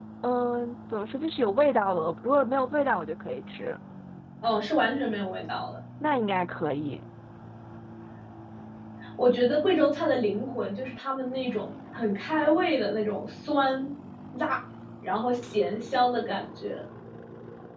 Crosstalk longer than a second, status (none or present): none